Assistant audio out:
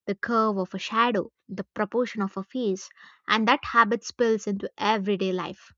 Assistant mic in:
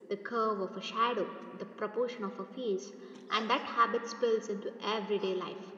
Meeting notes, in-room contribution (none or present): none